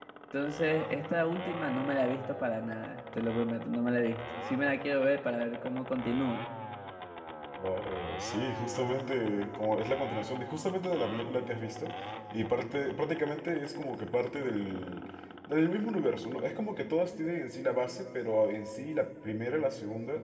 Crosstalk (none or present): none